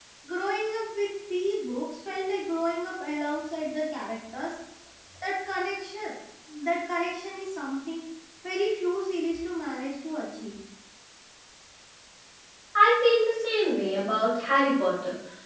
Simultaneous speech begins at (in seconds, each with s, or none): none